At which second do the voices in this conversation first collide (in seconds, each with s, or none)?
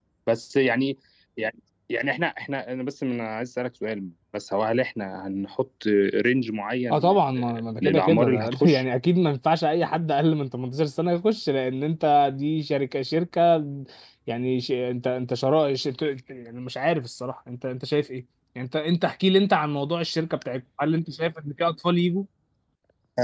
6.9 s